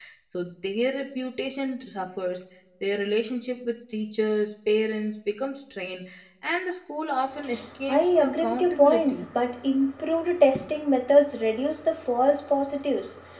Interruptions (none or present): present